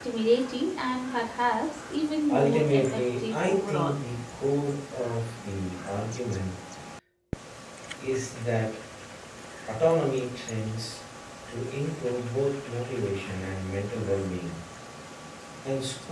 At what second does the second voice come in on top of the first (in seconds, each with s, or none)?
2.3 s